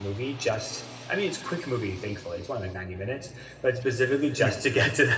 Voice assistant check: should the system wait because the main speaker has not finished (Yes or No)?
Yes